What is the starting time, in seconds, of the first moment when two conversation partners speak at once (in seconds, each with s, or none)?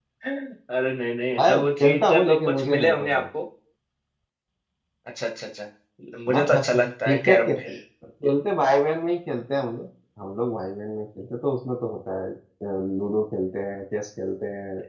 1.4 s